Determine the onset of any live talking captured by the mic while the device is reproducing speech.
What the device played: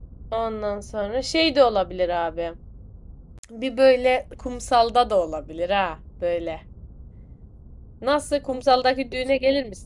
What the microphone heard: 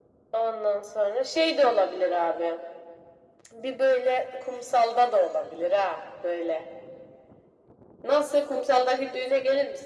none

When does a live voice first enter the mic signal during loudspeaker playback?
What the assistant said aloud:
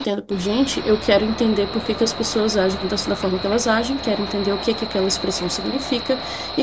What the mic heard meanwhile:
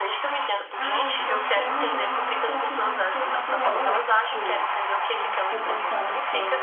0.8 s

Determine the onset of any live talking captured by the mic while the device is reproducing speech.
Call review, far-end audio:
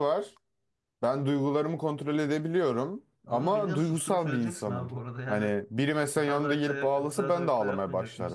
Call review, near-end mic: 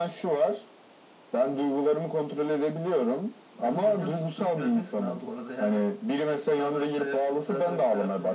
none

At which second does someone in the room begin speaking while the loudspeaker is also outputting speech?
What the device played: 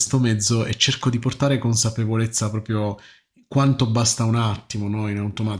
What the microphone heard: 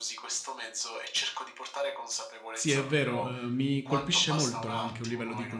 2.5 s

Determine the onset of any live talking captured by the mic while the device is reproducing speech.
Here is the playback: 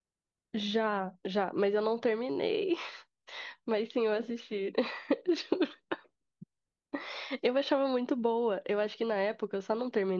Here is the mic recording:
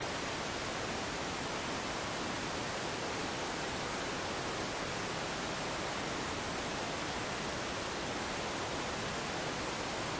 none

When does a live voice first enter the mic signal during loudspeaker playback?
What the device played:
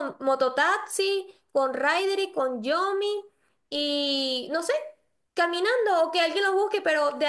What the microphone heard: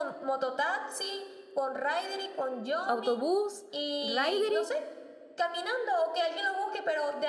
2.8 s

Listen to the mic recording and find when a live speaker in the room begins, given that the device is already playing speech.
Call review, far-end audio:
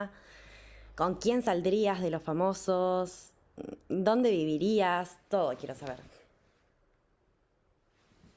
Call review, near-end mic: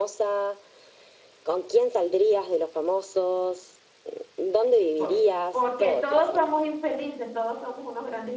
5.0 s

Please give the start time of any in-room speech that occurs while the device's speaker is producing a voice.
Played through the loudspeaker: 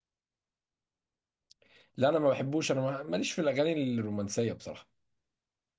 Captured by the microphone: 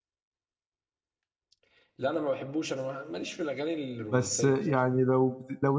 4.0 s

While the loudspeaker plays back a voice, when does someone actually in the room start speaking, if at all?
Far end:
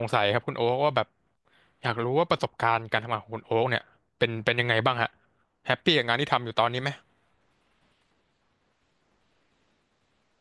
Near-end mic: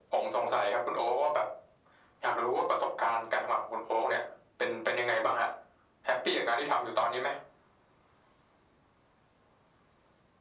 none

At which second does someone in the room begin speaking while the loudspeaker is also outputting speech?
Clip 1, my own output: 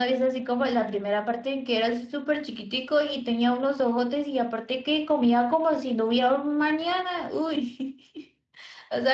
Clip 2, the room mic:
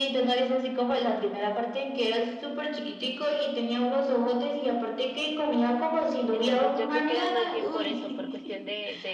6.3 s

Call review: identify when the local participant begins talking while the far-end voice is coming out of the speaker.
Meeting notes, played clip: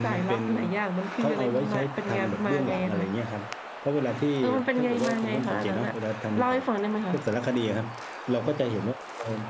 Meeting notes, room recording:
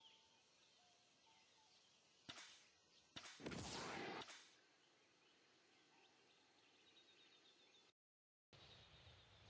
none

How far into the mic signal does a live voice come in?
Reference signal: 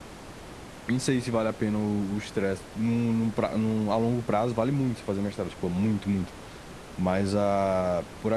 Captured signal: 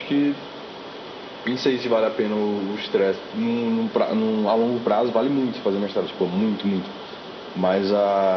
none

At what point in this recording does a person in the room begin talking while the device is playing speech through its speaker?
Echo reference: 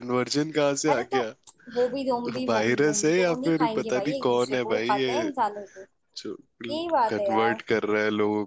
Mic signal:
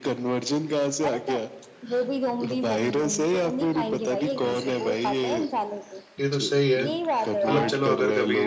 4.4 s

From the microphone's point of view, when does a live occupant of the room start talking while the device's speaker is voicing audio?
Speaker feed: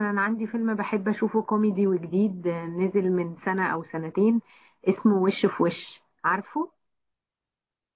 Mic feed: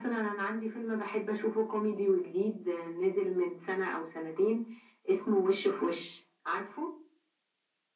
none

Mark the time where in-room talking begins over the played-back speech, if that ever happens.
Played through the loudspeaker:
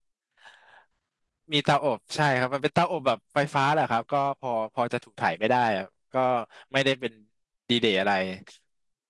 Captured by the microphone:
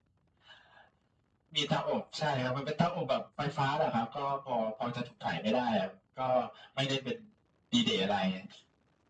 none

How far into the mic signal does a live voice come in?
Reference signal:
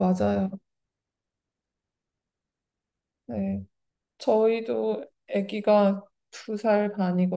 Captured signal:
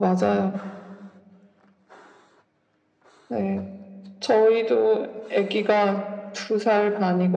none

